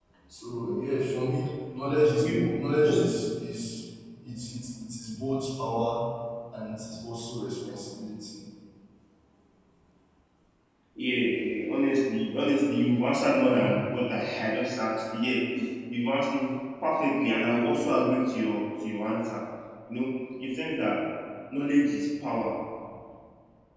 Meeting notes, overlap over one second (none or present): none